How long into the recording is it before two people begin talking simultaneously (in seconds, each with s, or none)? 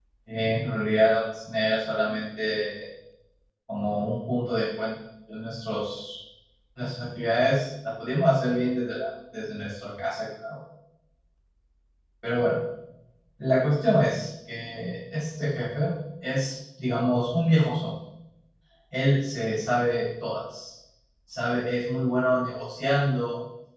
none